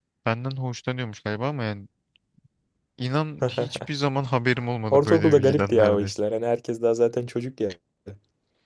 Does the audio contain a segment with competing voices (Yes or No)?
Yes